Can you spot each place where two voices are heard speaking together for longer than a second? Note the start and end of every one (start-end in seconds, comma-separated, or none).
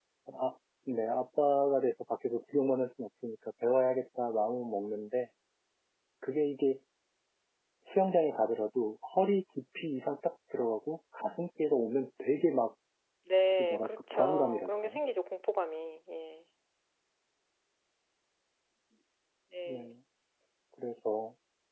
13.6-15.0